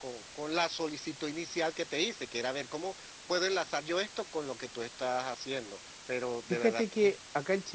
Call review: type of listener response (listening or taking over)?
taking over